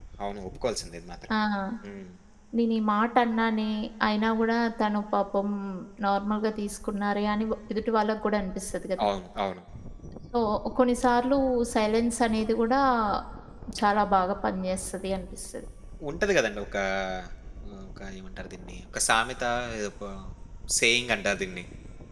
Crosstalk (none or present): none